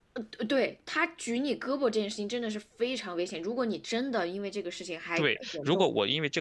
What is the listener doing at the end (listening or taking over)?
taking over